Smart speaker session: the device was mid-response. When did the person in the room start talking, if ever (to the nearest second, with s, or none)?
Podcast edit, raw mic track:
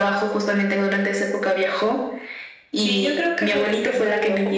none